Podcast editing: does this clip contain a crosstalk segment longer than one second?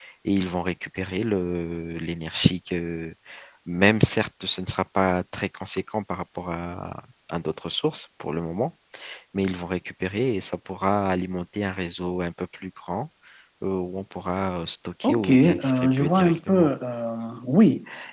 Yes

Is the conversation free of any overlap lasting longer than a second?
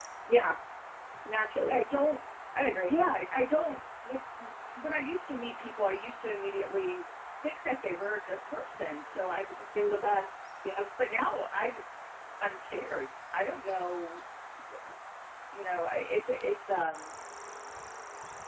Yes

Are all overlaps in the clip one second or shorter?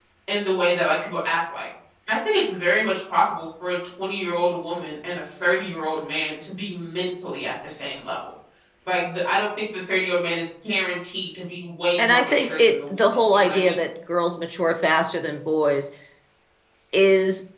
No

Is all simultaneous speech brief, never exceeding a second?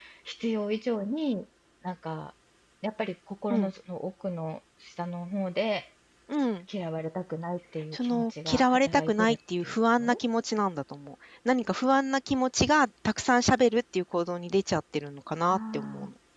No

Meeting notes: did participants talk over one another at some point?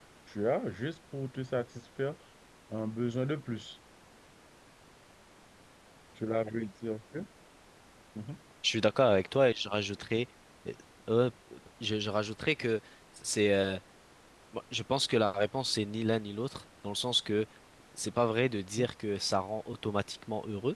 No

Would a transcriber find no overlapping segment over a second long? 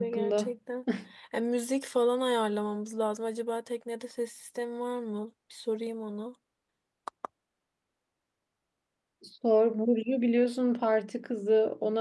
Yes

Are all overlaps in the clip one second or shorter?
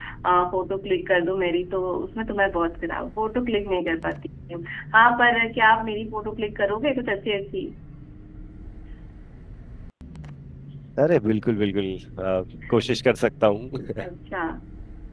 Yes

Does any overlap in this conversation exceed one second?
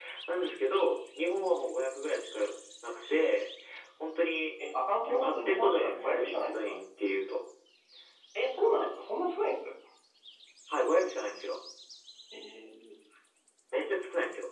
Yes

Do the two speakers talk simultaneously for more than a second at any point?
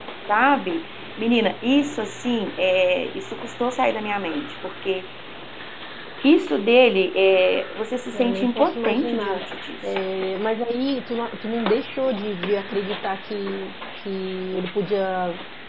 Yes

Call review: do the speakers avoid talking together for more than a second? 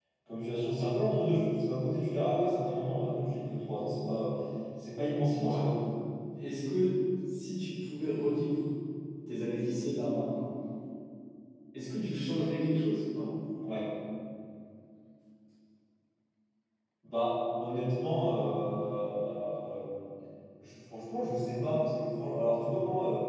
Yes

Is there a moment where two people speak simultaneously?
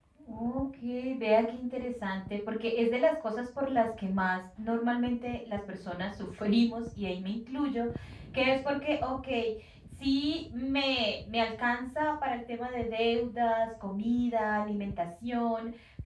No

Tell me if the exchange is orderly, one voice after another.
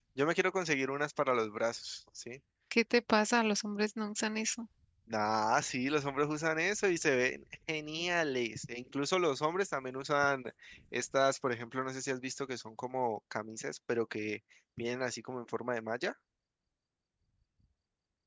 Yes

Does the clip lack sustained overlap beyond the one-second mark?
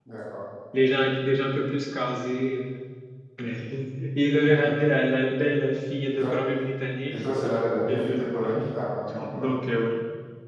Yes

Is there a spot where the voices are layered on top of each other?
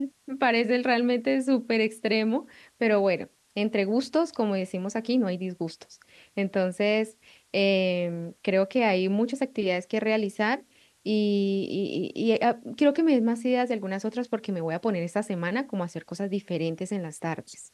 No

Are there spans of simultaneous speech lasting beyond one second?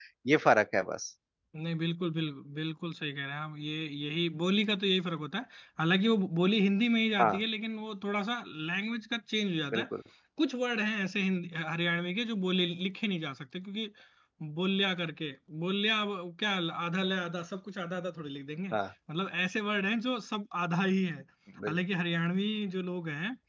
No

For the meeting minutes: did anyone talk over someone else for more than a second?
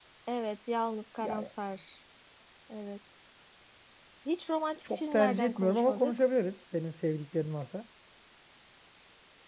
Yes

